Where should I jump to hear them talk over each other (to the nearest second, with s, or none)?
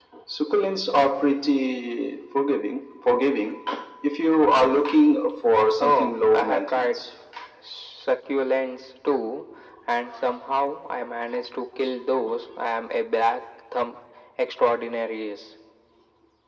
6 s